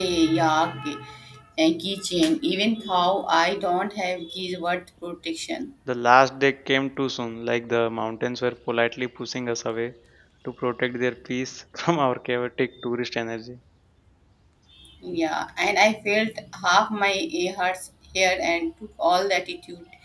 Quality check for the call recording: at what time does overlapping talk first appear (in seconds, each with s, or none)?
none